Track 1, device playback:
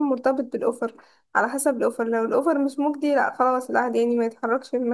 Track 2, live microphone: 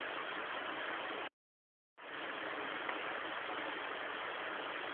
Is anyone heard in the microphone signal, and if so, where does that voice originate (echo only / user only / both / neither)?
neither